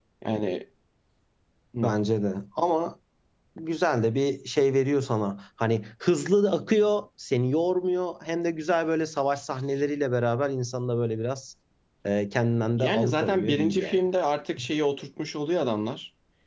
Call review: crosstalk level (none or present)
present